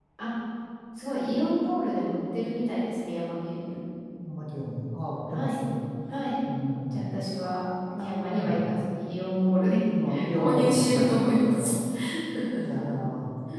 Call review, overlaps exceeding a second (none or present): present